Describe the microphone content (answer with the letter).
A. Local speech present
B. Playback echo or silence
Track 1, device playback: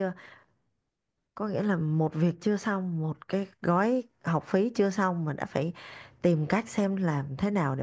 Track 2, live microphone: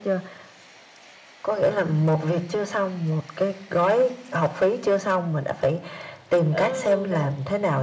A